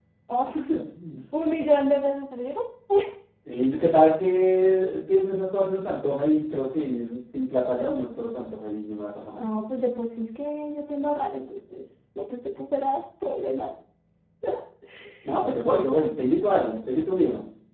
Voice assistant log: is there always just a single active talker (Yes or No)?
Yes